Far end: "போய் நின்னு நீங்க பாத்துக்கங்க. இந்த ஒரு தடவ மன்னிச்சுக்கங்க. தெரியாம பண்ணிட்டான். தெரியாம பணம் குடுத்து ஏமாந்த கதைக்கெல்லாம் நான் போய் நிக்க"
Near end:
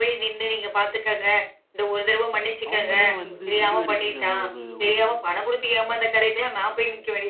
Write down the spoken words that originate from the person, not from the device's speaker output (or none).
அவங்களே வந்து முடிவெடுக்கிற ஒரு ஒரு